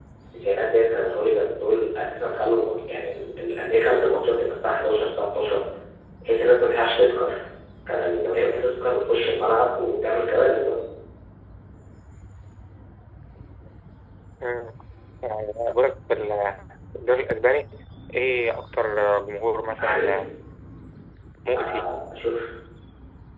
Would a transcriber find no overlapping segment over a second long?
Yes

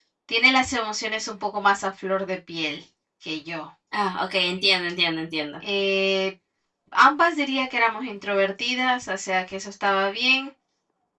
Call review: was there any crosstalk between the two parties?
No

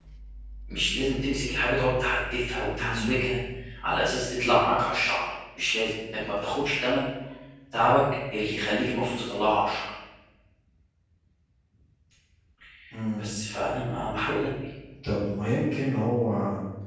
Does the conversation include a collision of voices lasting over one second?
No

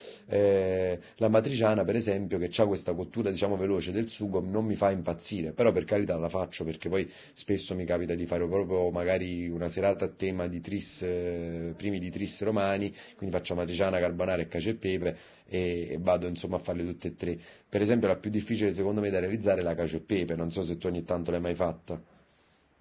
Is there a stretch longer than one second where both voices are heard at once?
No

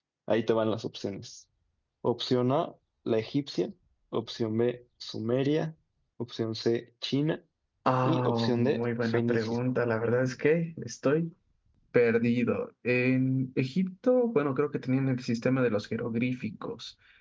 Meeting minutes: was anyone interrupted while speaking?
Yes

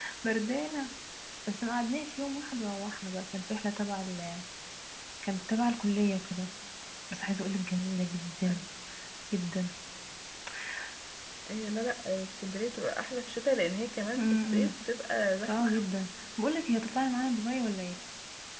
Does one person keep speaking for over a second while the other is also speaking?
No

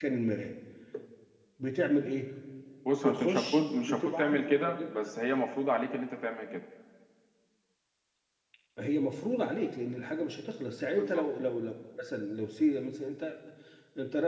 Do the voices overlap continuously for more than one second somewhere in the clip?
Yes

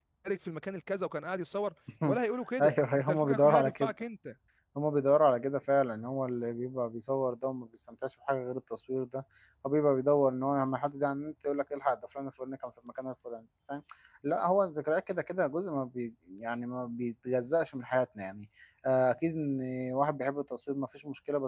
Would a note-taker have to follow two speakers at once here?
Yes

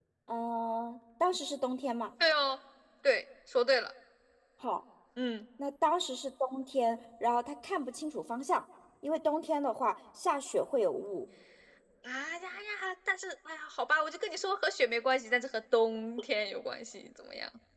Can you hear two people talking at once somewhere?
No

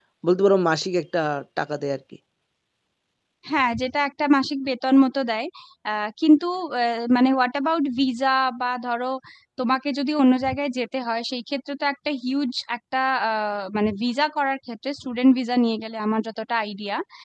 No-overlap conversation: Yes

